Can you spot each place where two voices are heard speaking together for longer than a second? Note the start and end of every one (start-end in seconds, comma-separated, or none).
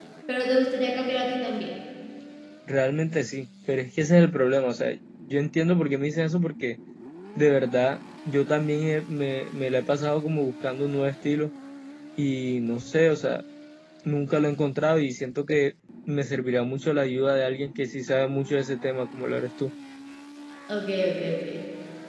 none